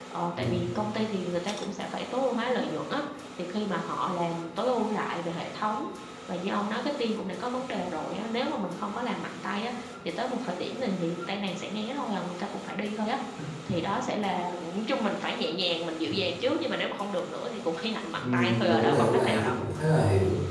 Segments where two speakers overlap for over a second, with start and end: 18.2-19.6

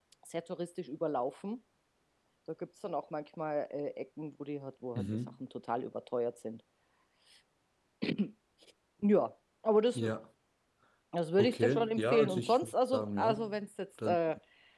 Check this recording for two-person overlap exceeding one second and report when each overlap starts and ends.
11.4-13.5

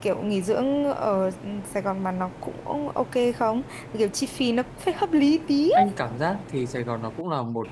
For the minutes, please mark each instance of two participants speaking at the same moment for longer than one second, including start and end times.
none

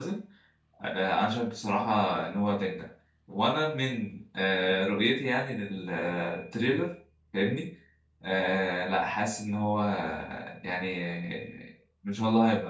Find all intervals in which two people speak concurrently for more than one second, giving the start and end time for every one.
none

